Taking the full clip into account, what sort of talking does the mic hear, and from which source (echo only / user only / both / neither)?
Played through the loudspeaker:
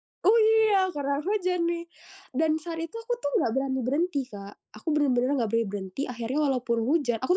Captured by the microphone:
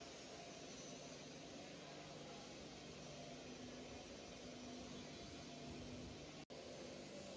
neither